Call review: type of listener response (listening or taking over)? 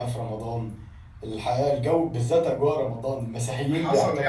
taking over